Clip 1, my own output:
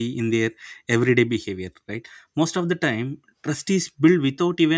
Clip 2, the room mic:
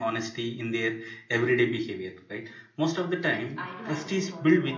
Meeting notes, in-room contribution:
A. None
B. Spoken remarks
B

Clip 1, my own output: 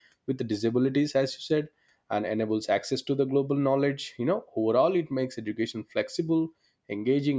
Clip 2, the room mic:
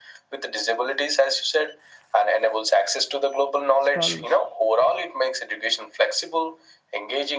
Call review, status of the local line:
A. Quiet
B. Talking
B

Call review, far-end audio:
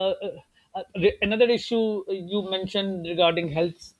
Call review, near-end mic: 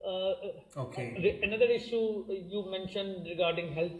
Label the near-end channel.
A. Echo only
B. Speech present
B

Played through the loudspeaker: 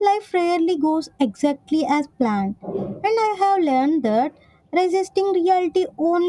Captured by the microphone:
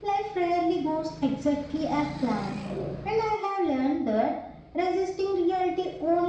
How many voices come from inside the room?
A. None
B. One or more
A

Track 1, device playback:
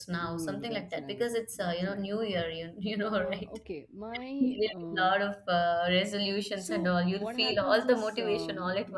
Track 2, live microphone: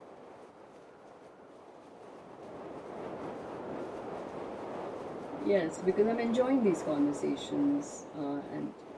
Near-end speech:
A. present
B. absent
A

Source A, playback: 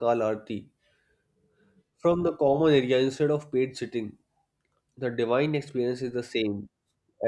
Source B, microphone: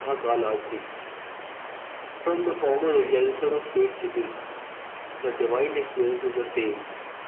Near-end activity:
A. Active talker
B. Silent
B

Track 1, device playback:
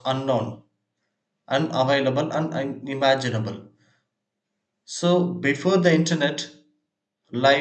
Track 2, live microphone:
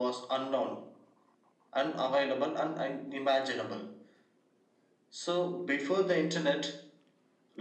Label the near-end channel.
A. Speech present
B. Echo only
B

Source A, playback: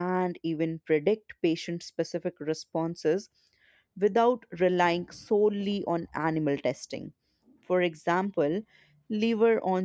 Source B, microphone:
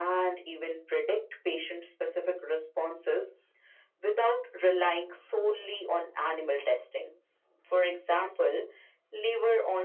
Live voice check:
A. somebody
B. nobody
B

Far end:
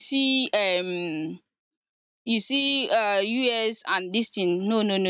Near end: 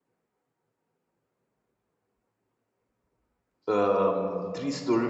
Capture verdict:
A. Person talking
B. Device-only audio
A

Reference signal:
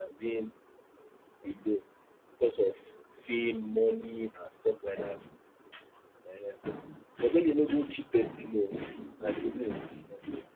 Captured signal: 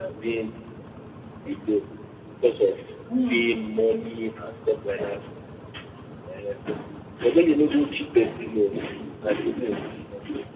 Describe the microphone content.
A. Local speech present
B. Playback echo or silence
A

